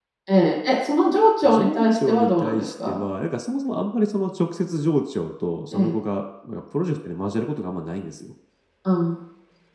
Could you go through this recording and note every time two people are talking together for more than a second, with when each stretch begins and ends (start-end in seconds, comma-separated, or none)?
1.4-3.0